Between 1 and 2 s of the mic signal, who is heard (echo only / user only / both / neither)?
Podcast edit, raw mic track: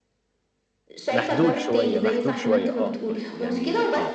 both